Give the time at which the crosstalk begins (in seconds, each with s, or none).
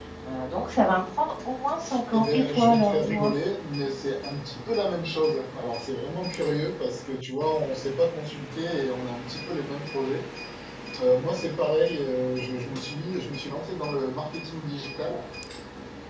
2.1 s